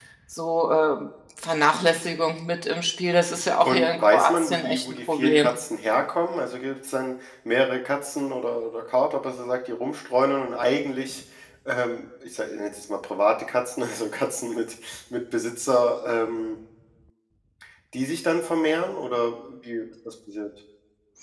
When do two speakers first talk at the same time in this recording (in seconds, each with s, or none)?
3.6 s